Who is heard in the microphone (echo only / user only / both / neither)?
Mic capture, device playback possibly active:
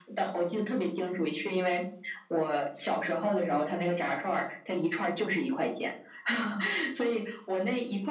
echo only